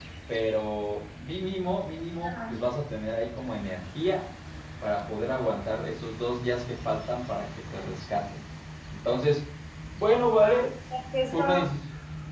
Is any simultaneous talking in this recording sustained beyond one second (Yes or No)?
No